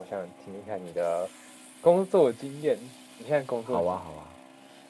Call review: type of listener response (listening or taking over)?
taking over